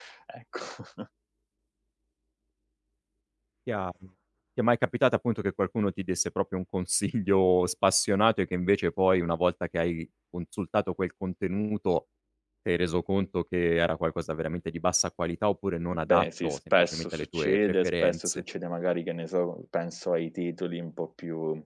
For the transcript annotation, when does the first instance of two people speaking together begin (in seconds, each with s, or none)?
15.9 s